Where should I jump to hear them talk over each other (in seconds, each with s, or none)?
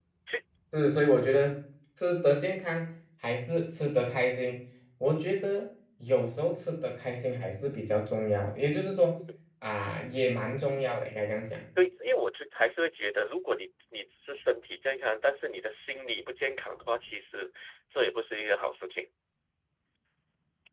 none